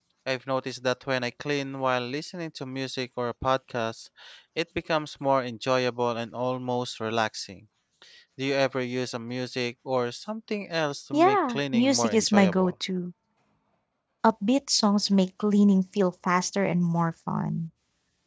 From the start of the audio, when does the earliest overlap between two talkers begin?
11.1 s

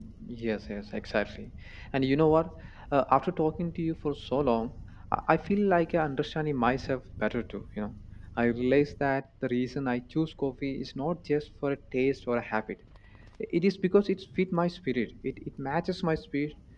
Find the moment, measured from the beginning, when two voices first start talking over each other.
none

